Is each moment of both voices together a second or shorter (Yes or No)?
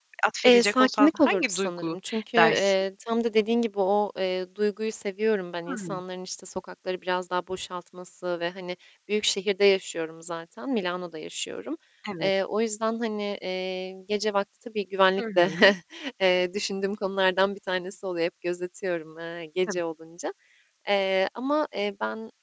No